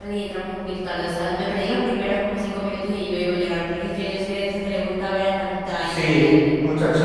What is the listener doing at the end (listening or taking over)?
taking over